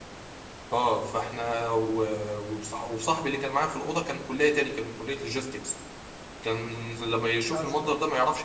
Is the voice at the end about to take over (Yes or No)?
No